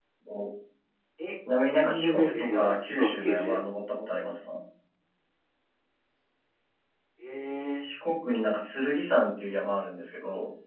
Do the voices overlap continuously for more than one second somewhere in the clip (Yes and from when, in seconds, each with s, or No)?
Yes, from 1.7 s